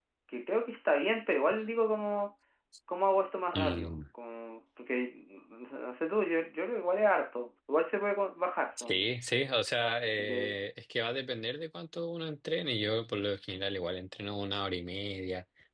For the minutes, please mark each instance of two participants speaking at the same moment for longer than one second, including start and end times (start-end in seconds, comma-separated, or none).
none